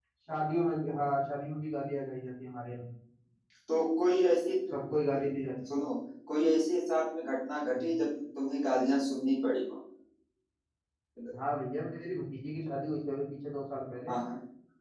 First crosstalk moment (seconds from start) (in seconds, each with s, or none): none